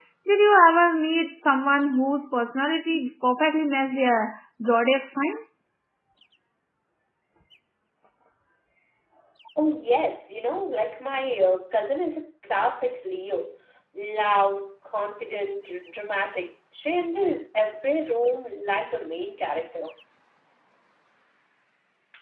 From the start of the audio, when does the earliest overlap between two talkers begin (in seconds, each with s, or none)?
none